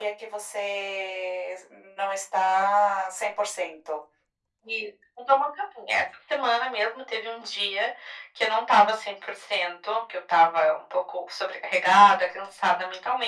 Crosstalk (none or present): none